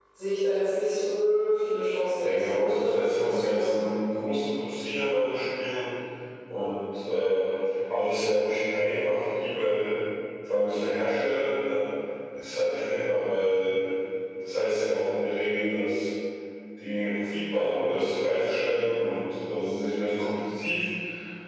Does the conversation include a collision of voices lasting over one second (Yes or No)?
Yes